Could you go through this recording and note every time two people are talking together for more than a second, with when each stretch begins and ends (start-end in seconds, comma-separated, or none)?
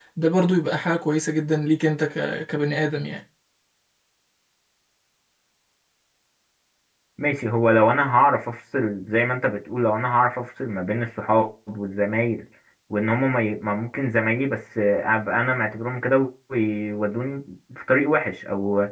none